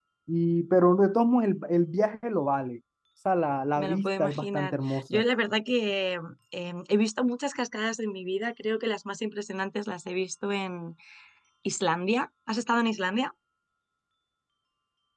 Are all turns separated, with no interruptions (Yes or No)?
No